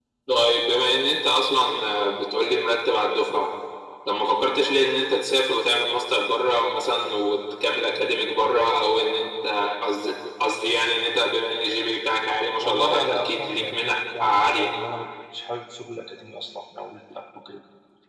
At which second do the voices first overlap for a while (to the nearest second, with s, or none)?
13 s